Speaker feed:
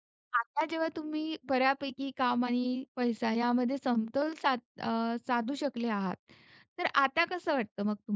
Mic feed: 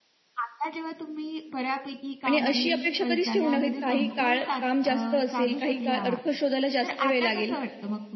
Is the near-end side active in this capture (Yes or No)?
Yes